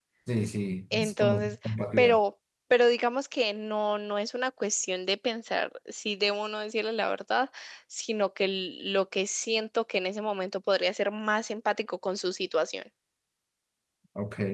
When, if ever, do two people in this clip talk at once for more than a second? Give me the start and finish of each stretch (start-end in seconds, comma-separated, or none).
0.9-2.2